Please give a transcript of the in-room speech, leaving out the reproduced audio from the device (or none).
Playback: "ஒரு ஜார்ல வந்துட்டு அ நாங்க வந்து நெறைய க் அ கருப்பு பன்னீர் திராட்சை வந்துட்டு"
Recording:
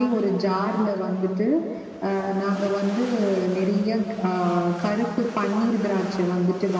none